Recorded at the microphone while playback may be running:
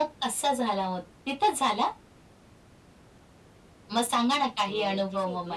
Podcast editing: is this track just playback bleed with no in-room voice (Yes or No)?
No